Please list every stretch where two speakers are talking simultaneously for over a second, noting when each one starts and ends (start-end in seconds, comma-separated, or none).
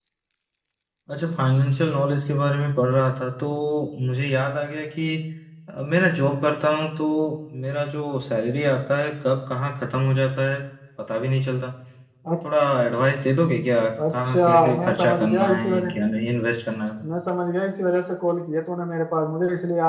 14.1-15.9